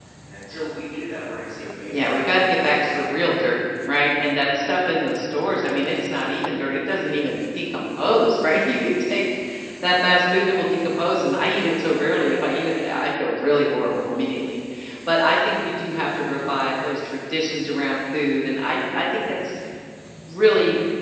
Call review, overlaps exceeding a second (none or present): present